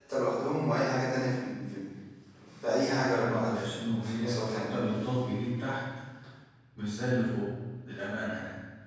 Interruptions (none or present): present